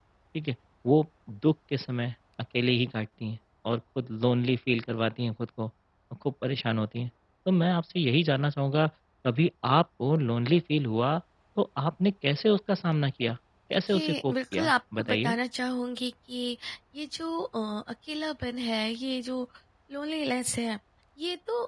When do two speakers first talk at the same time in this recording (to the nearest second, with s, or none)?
14 s